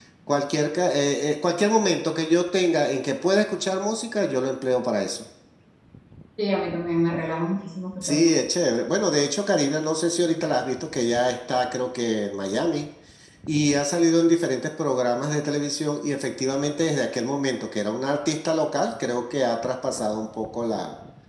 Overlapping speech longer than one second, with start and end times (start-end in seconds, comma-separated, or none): none